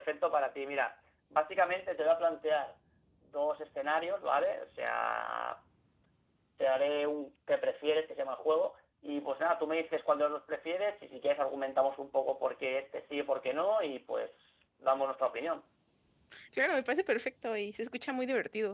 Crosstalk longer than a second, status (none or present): none